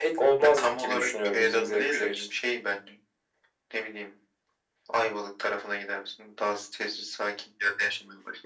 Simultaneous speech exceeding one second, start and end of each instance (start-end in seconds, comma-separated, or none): 0.6-2.2